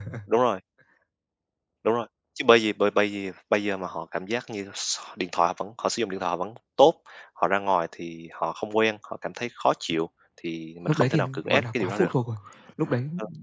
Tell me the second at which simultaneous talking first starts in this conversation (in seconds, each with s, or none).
10.9 s